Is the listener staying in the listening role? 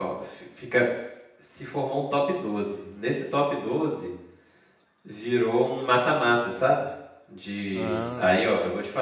Yes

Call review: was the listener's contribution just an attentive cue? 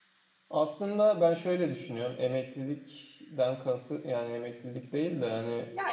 No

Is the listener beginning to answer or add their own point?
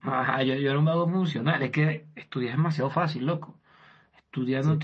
No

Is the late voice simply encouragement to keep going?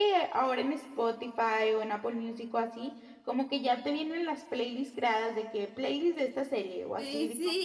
No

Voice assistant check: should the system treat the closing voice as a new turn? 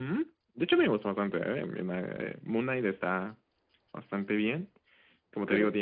No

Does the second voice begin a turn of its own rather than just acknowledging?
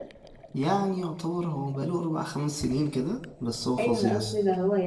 Yes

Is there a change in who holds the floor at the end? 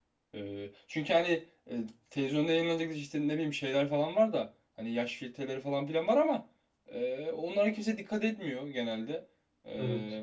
No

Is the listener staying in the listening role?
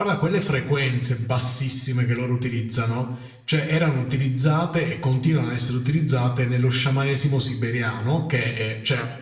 Yes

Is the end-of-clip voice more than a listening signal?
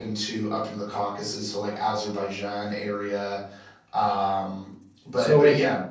Yes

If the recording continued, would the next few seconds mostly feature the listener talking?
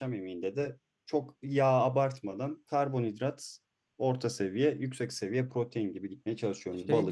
Yes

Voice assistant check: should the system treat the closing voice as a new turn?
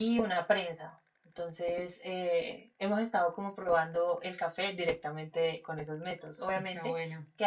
No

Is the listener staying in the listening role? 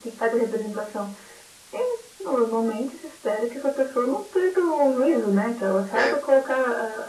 Yes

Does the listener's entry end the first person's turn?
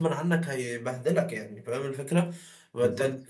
No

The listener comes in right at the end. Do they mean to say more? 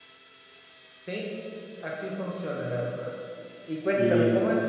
No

